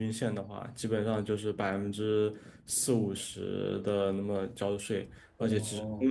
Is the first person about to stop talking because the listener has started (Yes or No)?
No